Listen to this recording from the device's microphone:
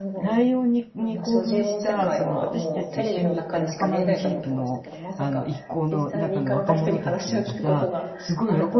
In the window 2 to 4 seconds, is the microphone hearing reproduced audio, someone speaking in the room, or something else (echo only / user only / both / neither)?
both